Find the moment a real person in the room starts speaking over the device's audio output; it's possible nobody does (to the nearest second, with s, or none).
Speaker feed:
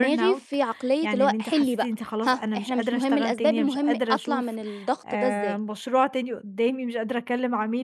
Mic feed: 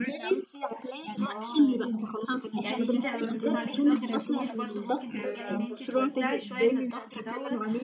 1 s